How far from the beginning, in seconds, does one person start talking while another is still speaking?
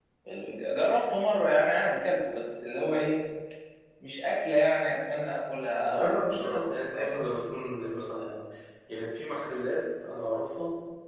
5.8 s

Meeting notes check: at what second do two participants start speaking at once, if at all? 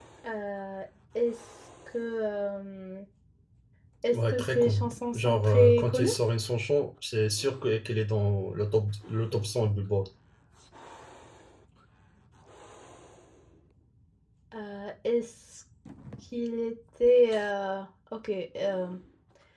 4.1 s

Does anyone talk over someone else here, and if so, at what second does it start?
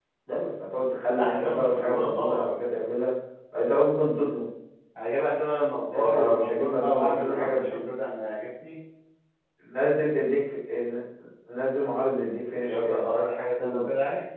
1.2 s

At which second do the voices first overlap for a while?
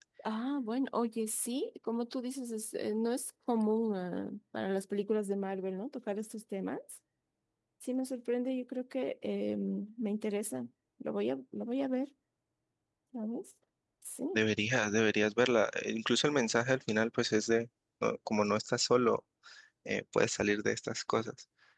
none

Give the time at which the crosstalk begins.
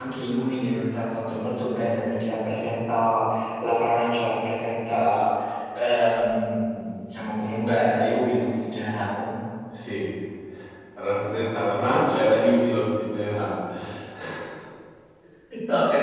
none

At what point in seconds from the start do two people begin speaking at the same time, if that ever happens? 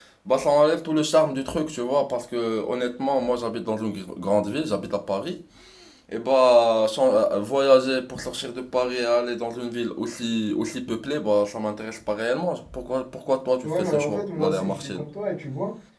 13.6 s

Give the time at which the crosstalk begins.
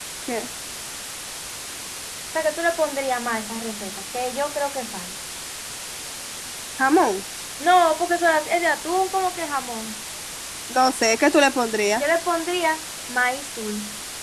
none

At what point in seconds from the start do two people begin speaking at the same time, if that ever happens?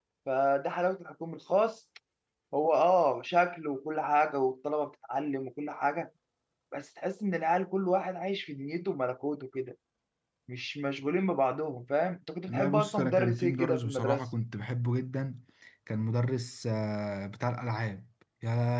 12.5 s

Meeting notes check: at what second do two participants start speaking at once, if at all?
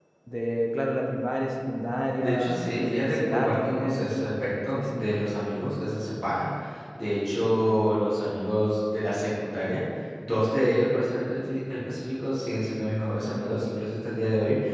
2.2 s

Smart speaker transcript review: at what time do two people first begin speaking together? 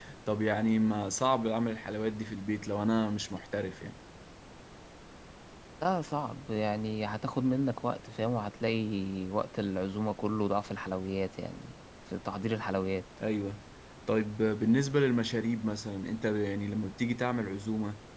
none

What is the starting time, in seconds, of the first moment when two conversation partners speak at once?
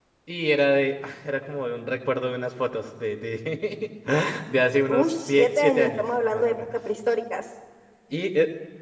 4.9 s

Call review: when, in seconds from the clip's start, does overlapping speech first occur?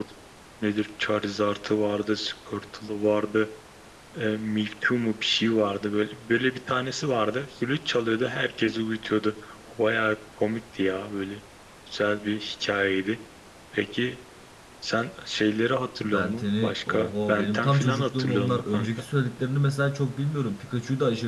16.0 s

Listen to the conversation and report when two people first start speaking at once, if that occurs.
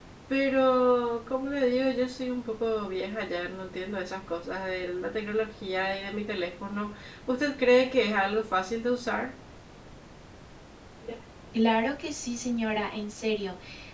none

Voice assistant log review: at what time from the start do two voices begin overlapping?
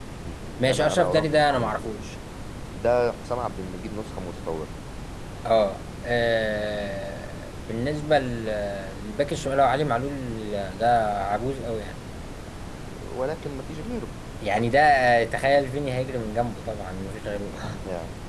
0.6 s

